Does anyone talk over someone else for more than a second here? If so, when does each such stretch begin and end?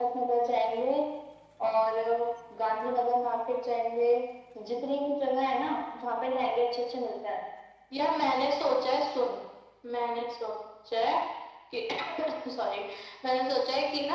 none

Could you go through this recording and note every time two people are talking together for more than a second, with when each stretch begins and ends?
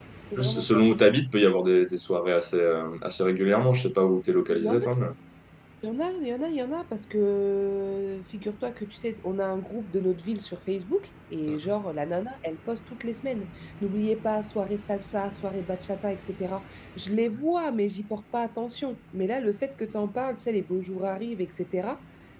none

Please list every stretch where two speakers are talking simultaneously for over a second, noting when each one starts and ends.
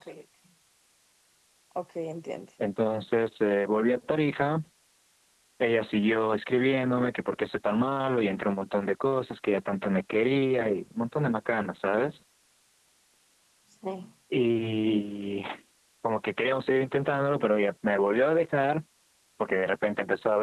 none

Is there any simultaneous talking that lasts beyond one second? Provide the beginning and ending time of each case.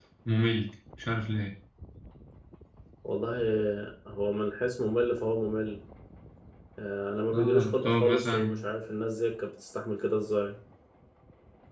7.3-8.6

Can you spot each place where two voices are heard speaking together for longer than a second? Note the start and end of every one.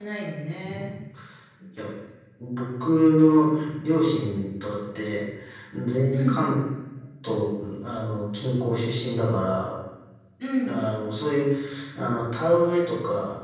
none

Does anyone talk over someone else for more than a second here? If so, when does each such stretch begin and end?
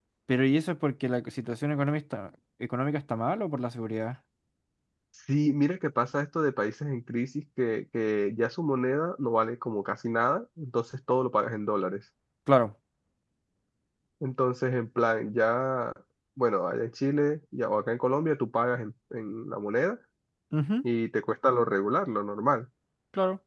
none

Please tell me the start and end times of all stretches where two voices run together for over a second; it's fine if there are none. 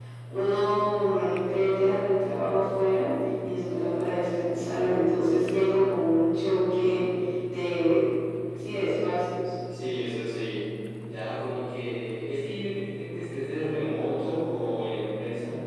none

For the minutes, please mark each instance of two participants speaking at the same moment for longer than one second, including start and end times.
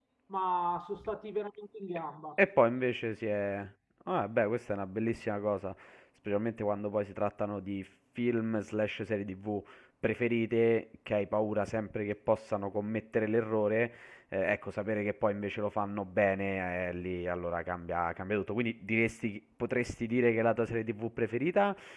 none

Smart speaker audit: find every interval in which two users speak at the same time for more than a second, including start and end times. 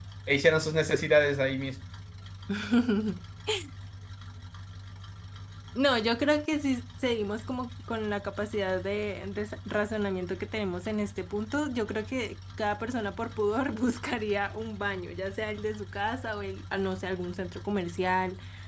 none

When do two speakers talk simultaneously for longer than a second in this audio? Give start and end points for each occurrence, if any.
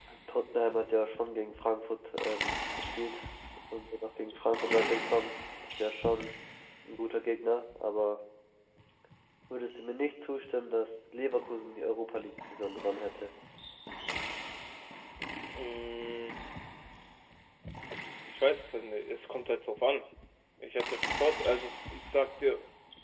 none

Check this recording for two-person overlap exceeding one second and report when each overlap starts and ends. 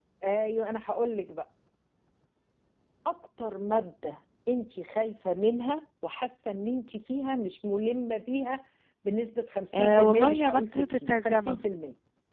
9.7-11.6

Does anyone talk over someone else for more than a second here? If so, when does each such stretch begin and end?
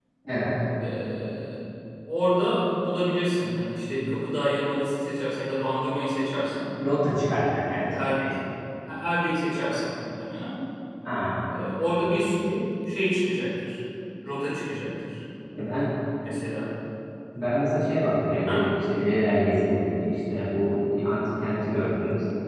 none

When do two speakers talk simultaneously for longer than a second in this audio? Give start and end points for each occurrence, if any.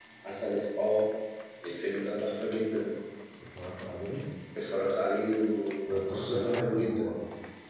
5.9-7.1

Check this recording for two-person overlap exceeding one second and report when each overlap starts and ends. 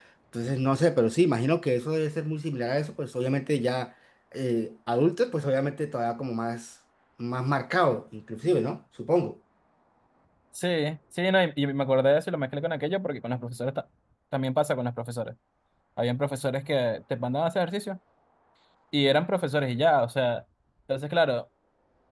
none

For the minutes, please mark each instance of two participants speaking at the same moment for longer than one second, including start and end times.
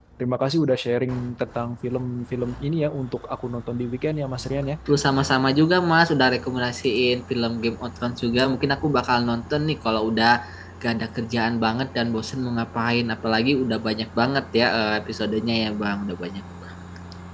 none

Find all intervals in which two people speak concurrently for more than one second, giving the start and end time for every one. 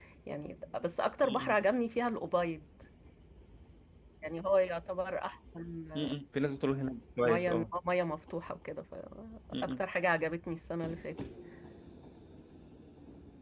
none

